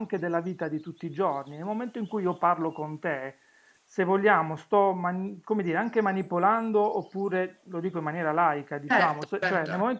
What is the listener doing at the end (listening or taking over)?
listening